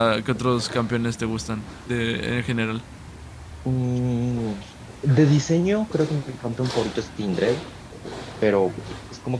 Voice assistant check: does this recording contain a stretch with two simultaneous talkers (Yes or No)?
No